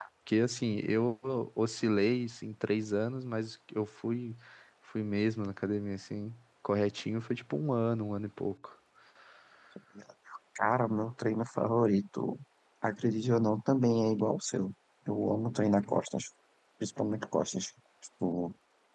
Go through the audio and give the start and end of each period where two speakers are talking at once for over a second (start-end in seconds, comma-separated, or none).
none